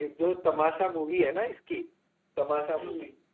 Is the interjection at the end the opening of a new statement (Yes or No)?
No